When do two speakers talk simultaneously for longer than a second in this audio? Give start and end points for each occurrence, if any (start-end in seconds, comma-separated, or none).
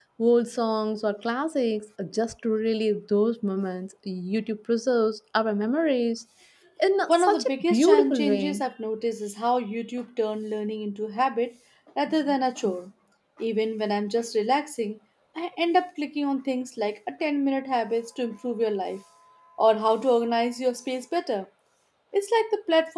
7.1-8.6